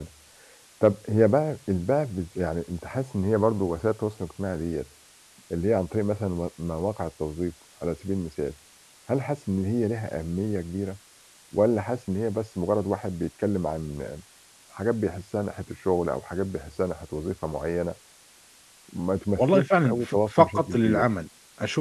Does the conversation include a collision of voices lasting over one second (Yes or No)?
Yes